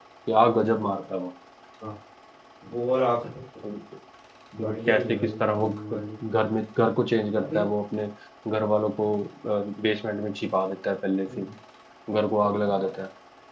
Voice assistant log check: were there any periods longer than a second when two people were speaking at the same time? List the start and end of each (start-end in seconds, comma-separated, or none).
4.6-6.0